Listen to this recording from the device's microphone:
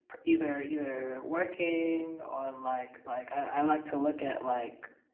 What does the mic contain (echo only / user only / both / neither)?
echo only